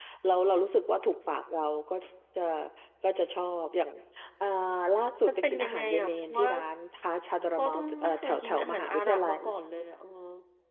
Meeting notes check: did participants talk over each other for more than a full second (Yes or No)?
Yes